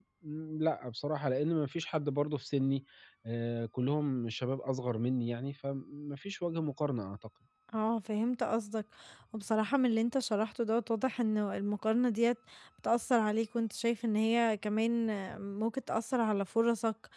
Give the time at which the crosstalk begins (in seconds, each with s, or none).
none